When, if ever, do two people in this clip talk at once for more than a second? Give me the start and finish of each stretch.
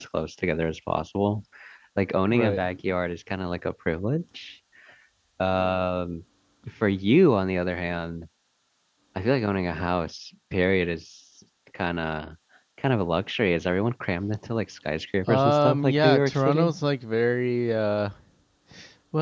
15.3-16.7

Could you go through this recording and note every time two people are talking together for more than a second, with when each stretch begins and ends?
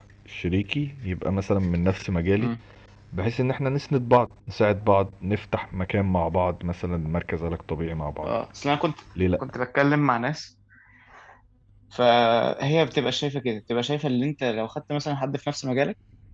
none

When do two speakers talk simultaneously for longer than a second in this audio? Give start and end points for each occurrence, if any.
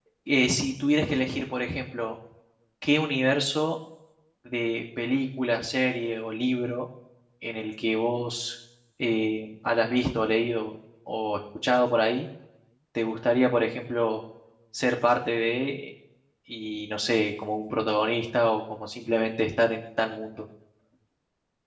none

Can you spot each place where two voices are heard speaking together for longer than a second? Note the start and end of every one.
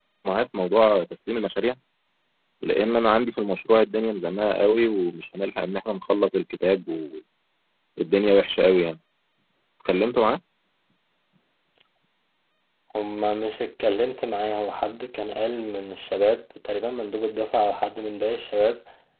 none

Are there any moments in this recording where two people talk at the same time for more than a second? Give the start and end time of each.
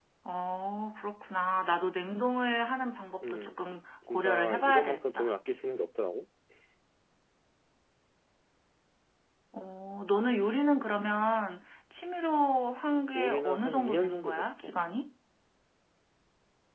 4.1-5.3, 13.2-14.8

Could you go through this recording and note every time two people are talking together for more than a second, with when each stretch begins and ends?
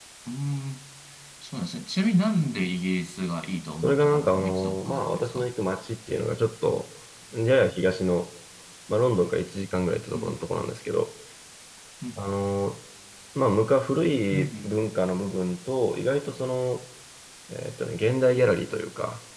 3.8-5.5

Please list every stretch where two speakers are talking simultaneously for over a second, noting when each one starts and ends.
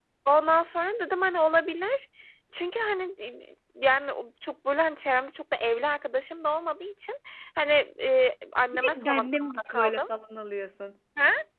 8.7-10.1

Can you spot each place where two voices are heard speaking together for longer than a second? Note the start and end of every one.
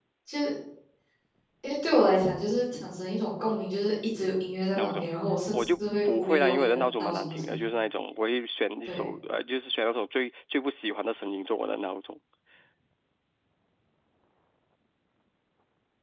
5.5-7.6

